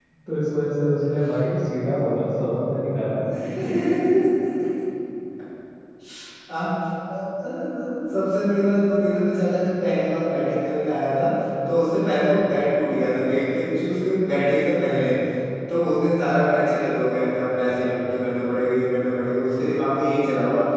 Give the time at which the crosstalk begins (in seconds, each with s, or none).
none